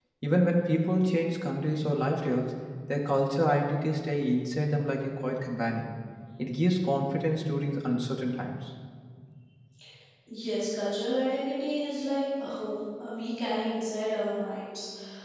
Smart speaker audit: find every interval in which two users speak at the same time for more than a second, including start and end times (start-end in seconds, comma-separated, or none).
none